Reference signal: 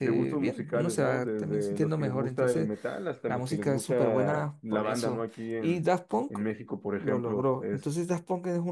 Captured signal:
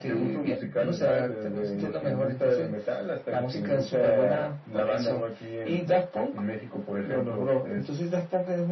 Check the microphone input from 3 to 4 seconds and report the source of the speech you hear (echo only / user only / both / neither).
echo only